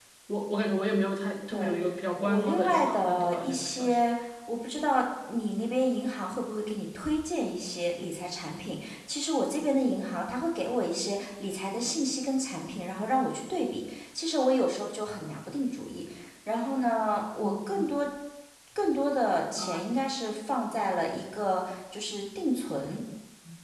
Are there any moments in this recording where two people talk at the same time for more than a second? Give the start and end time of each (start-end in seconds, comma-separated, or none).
2.2-4.0